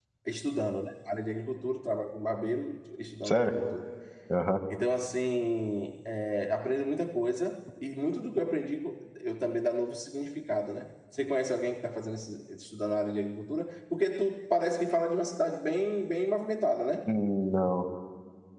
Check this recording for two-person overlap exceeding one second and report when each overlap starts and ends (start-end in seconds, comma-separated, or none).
none